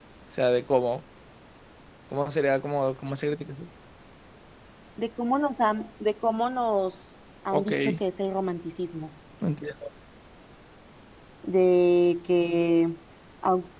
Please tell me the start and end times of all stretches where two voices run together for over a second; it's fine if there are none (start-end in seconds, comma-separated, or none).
none